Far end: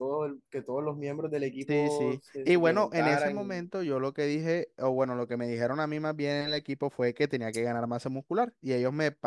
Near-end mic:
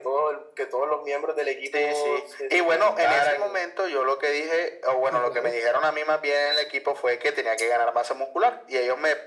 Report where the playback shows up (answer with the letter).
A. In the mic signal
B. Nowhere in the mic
A